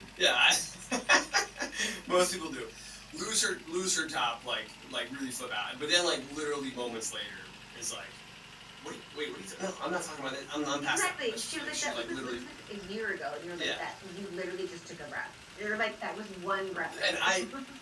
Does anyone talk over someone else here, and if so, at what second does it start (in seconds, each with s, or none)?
10.8 s